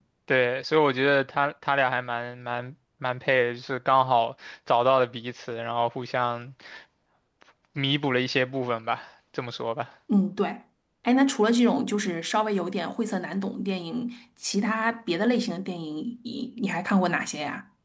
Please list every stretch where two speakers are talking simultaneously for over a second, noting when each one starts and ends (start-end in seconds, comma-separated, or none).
none